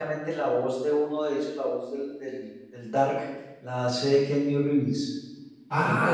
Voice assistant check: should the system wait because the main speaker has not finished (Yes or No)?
No